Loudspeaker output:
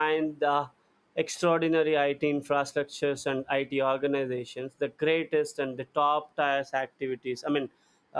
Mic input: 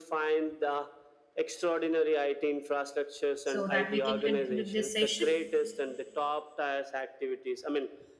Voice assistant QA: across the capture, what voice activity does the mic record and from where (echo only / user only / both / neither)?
both